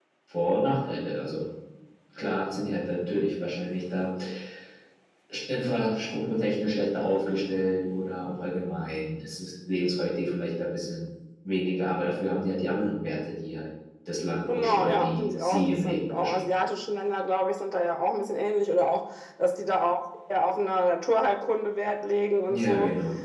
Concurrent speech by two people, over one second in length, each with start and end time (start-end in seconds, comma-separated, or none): 14.5-16.4